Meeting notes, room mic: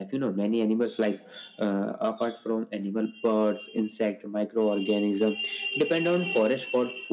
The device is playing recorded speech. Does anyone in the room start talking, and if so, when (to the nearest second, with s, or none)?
none